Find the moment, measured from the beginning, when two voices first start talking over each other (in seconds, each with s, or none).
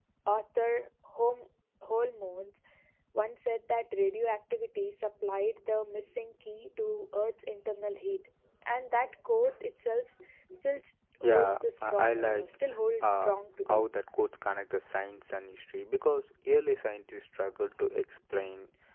11.2 s